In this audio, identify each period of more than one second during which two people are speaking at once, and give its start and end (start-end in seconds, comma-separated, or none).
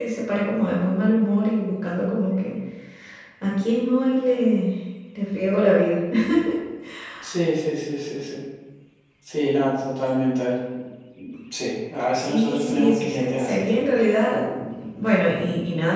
12.1-13.9